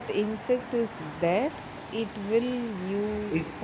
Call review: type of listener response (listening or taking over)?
taking over